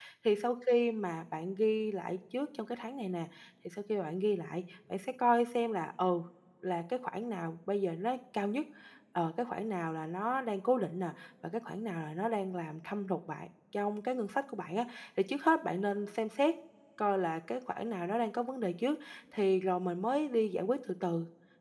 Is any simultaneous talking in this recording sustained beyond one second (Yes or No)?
No